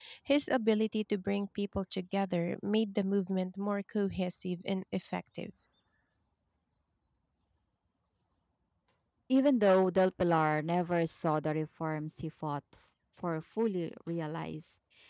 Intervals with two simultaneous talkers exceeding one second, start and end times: none

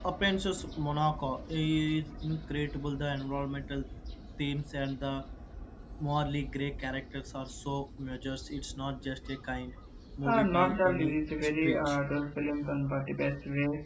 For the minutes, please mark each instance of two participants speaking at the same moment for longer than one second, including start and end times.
10.2-12.0

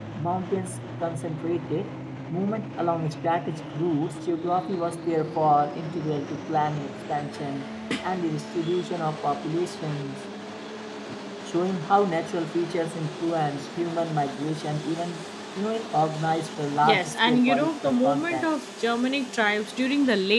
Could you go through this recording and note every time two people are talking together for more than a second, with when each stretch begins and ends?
16.8-18.5

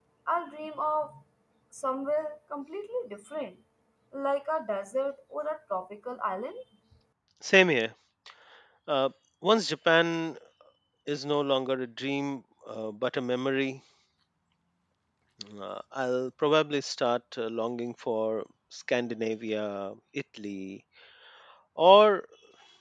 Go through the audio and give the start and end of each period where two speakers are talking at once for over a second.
none

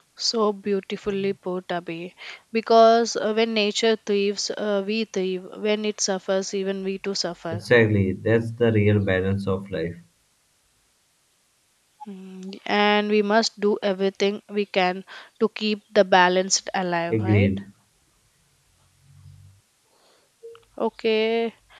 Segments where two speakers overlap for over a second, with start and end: none

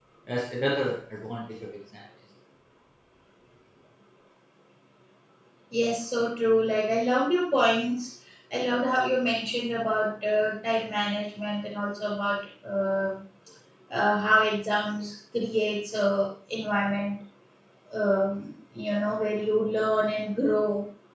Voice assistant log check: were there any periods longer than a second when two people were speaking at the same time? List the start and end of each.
none

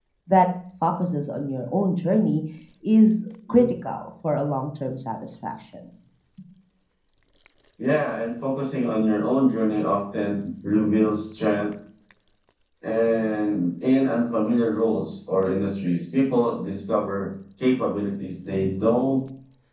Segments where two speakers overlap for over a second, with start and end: none

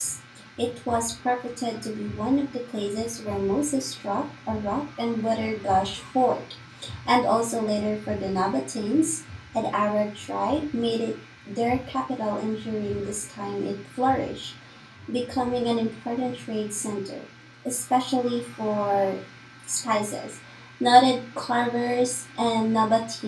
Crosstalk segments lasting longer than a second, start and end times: none

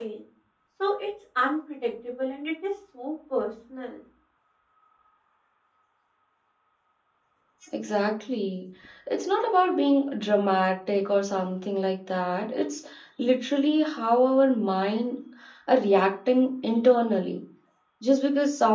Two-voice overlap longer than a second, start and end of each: none

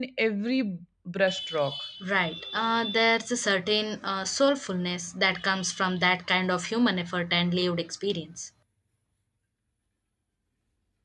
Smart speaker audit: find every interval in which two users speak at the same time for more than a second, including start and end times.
none

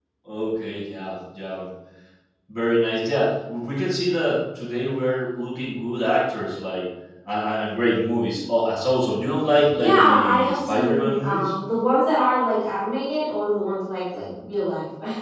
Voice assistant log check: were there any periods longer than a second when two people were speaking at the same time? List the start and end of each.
9.7-11.5

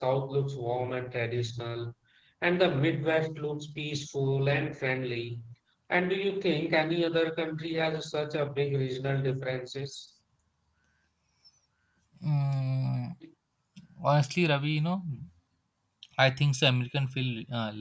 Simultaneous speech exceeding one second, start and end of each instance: none

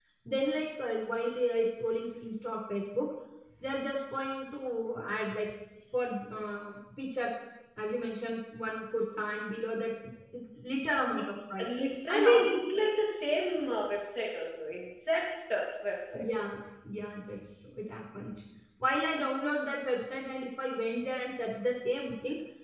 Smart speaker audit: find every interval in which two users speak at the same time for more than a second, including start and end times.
none

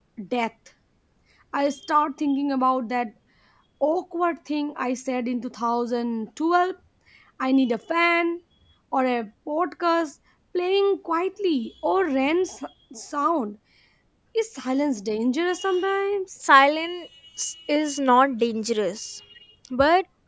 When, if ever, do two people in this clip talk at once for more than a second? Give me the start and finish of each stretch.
none

